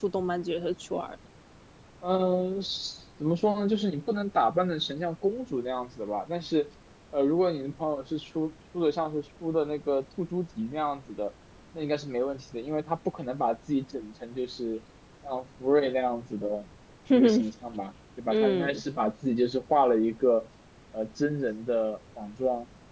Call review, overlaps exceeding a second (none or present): none